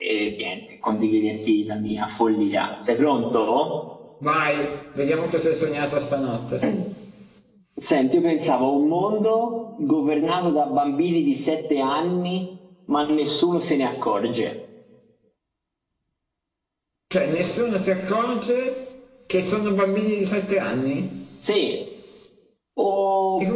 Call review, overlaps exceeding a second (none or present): none